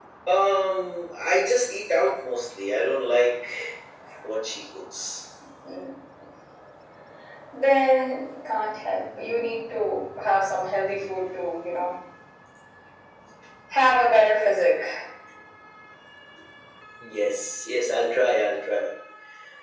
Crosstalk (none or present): none